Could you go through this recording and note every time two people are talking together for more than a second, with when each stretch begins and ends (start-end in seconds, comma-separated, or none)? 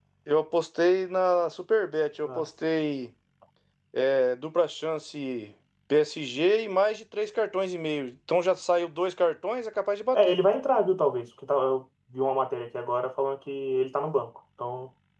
none